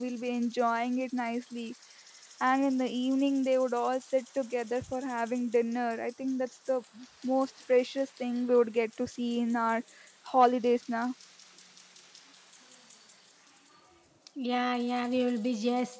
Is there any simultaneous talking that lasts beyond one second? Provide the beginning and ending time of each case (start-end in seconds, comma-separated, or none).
none